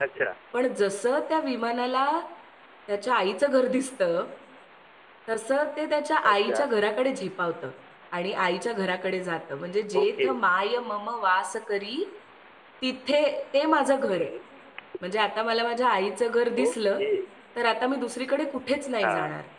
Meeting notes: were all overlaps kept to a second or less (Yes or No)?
Yes